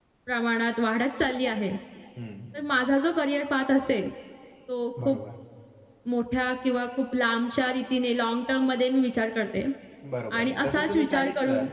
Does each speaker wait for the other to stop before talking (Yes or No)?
No